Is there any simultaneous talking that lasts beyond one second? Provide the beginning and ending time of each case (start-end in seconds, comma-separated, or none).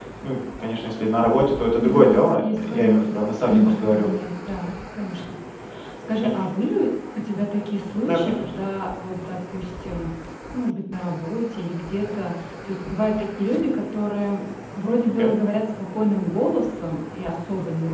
1.8-4.1